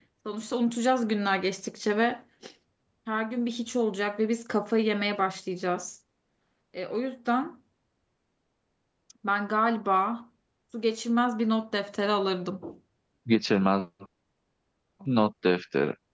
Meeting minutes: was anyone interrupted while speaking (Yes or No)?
No